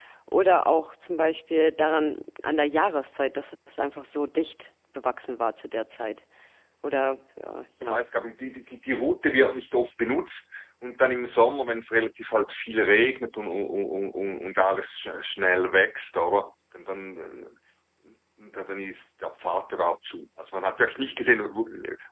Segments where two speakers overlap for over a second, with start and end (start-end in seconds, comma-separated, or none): none